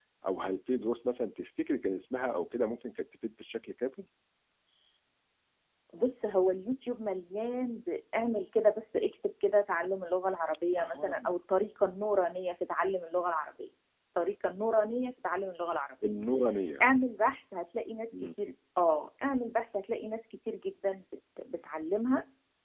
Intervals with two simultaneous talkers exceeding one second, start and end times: none

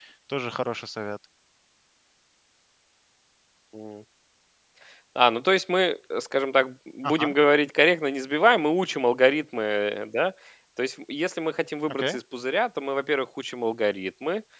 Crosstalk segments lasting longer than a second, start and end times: none

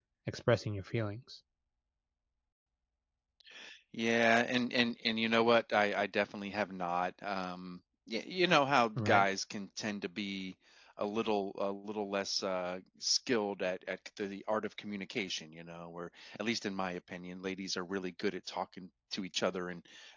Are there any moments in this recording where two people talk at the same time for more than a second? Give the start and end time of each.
none

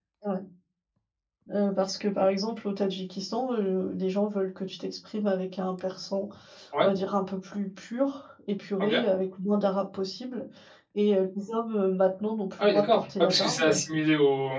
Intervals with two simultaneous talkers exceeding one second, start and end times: 12.6-13.8

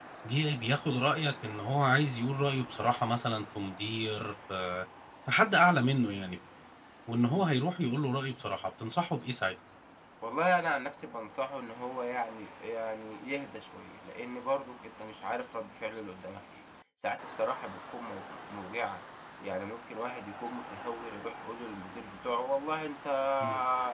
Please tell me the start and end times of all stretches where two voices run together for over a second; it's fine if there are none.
none

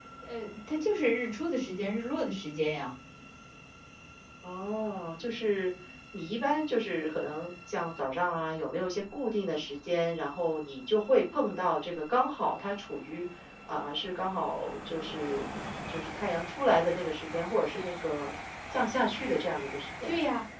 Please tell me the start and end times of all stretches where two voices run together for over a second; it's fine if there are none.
none

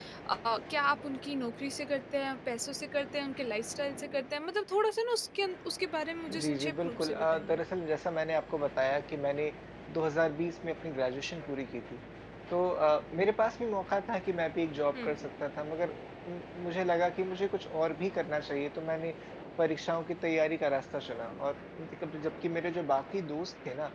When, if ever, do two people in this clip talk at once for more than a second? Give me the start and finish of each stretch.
6.3-7.6

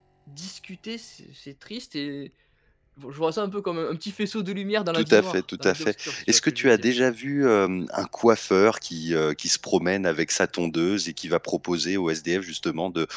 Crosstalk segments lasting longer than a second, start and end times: 4.9-6.9

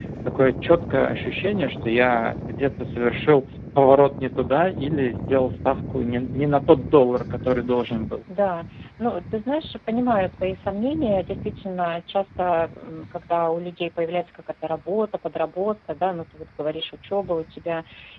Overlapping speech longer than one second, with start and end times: none

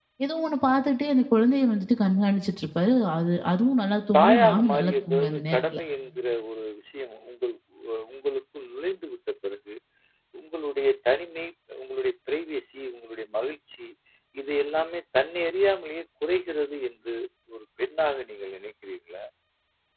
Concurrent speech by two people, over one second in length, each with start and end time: 4.2-5.8

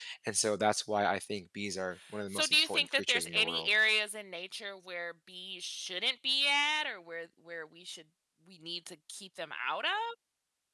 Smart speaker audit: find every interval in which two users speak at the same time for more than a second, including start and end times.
2.3-3.7

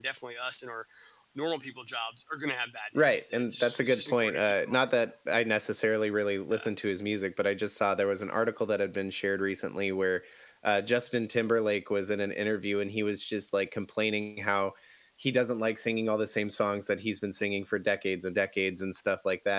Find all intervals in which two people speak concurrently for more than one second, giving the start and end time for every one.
3.0-4.9

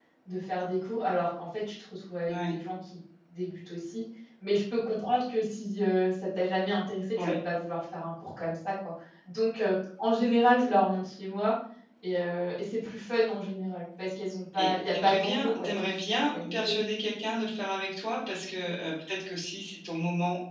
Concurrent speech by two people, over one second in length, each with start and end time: 14.6-16.8

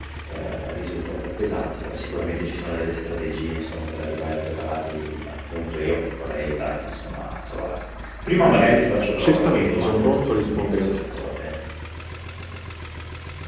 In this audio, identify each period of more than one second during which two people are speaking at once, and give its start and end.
9.2-11.3

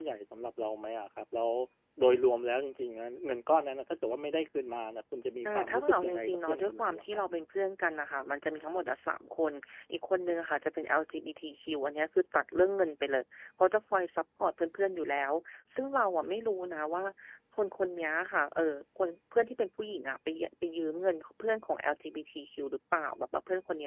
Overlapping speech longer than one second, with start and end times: 5.5-7.2

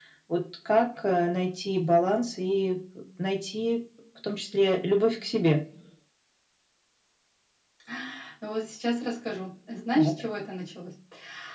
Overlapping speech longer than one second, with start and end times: none

